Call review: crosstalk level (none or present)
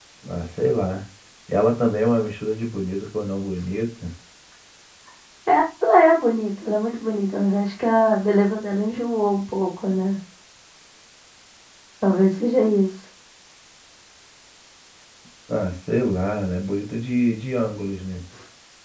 none